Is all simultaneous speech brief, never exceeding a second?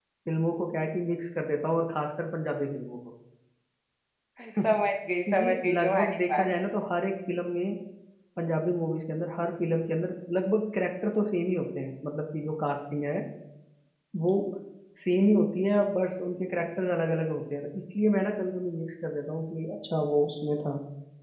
No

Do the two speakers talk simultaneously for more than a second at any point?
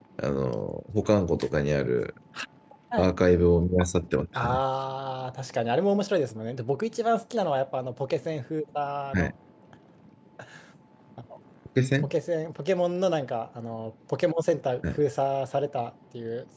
No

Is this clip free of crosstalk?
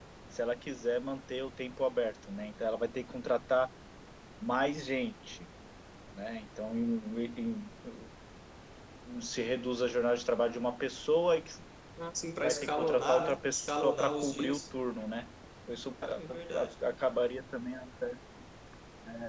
No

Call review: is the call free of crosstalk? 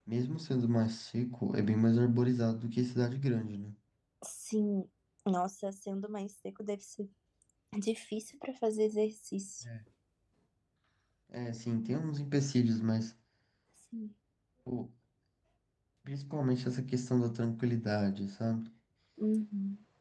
Yes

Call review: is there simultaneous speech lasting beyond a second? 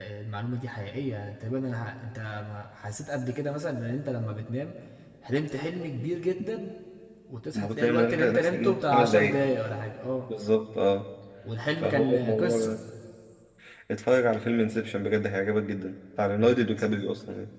Yes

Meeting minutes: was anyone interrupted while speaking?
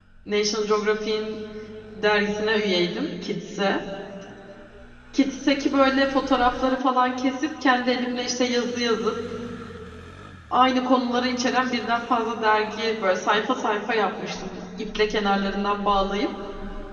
No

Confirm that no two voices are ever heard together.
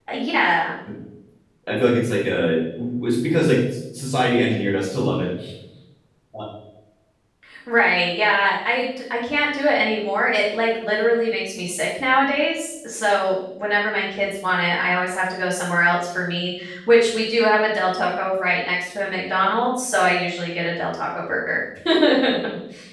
Yes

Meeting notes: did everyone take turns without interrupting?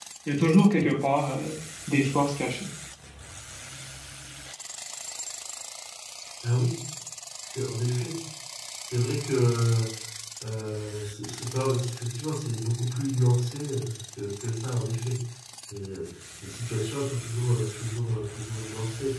Yes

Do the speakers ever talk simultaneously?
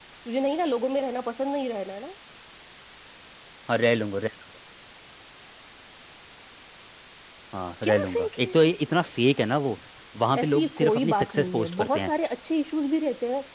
Yes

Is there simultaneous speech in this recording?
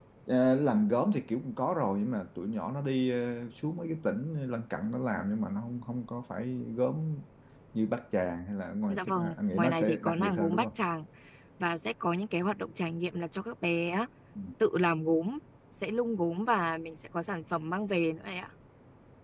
Yes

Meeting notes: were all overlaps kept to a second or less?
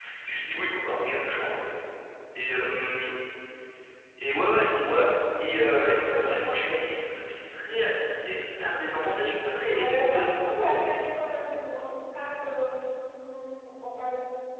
No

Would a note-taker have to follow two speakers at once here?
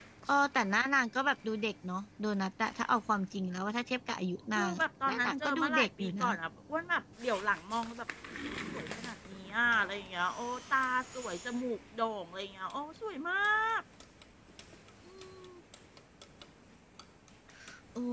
Yes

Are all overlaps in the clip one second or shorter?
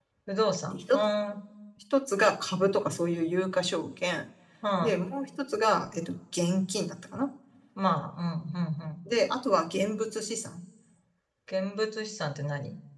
Yes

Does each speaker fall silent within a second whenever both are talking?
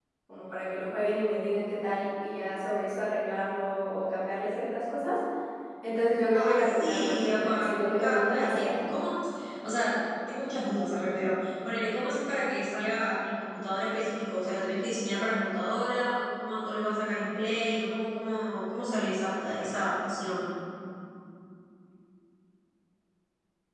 No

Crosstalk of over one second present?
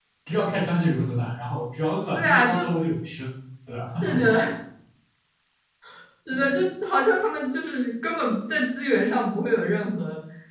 No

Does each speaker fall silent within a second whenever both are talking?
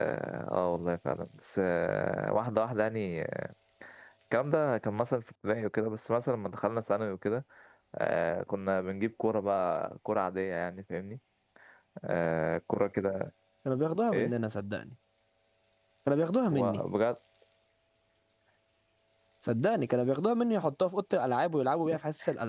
Yes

